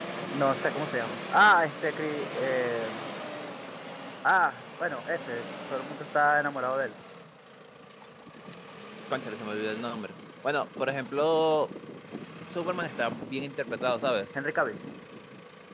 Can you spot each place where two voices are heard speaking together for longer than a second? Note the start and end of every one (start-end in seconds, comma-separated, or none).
none